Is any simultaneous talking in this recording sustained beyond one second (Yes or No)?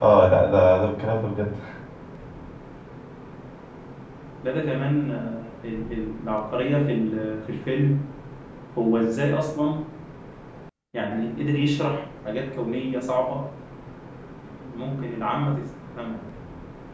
No